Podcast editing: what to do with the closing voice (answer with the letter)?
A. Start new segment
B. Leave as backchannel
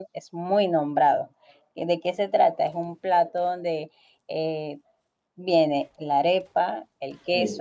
B